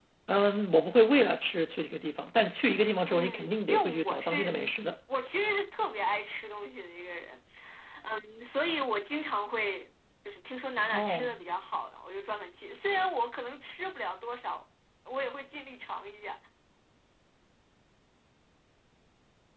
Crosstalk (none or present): present